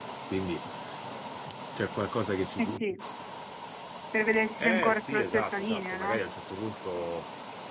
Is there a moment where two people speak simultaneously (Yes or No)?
Yes